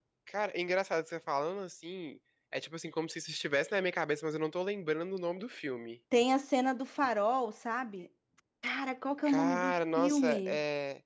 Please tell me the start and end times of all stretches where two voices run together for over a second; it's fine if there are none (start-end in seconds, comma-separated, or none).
9.2-10.6